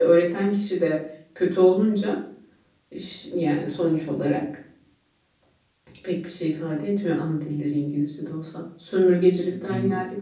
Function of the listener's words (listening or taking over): listening